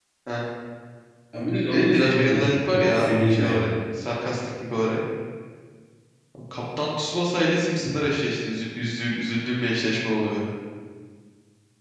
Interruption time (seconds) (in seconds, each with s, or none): 1.7 s